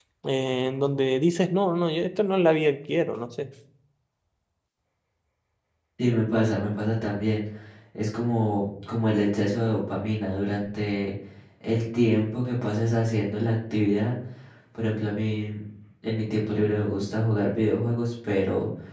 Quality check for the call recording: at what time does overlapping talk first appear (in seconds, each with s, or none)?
none